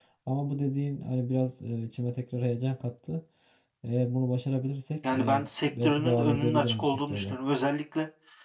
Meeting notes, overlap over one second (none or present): present